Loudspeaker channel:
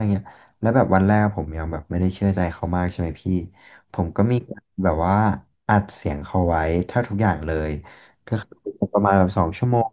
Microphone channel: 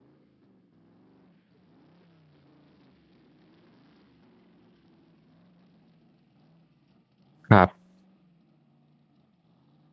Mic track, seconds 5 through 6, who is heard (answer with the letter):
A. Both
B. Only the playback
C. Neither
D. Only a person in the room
C